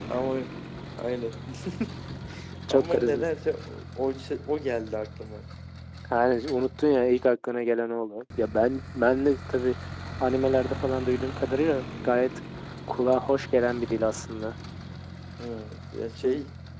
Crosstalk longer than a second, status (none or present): none